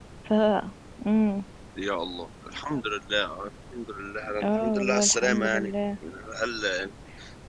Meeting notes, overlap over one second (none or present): present